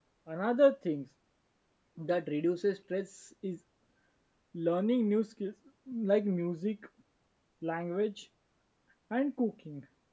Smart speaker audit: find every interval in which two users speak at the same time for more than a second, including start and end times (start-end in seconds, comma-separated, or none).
none